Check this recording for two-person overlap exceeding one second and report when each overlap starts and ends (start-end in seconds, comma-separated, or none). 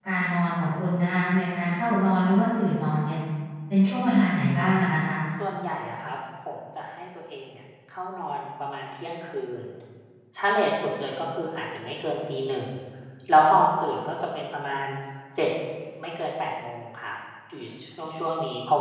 none